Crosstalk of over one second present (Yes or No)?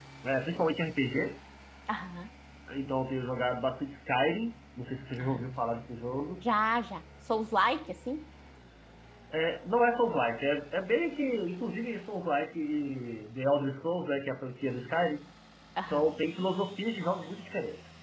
No